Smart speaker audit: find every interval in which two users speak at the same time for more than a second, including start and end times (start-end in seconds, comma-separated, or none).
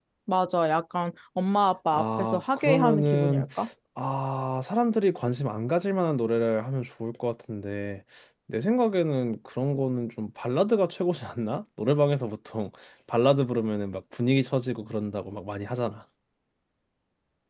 1.9-3.5